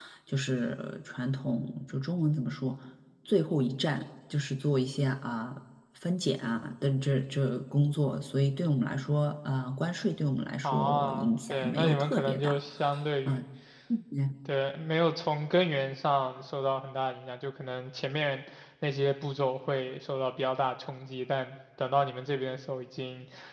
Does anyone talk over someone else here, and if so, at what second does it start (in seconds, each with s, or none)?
10.6 s